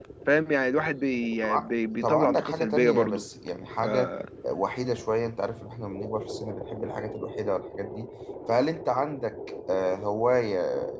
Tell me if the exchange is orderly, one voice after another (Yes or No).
No